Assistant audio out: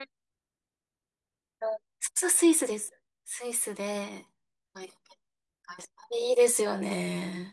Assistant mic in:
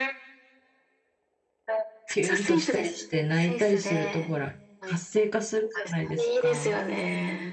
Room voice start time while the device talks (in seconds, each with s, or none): 2.1 s